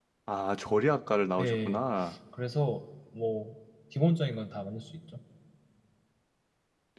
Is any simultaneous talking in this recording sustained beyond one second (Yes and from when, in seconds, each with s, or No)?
No